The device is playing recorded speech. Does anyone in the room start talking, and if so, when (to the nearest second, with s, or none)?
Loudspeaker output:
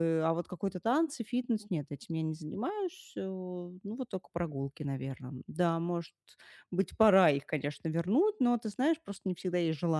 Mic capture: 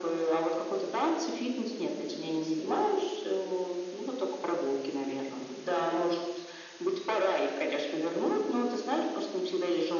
none